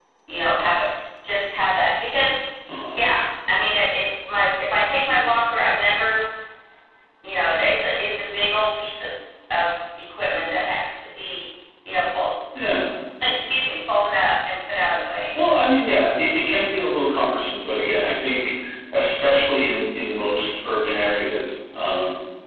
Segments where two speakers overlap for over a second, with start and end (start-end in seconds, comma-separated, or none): none